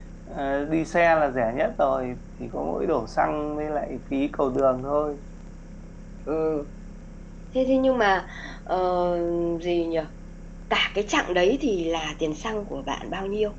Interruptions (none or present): none